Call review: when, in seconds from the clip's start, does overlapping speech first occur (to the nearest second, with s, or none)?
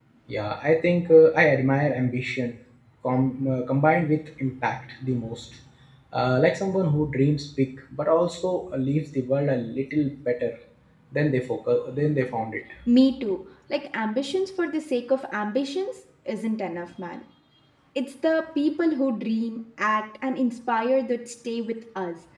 none